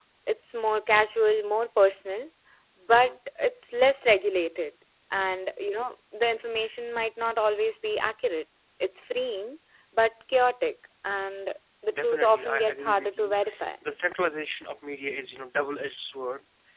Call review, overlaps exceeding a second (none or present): present